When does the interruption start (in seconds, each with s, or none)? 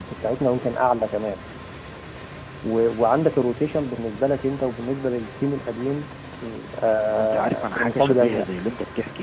7.1 s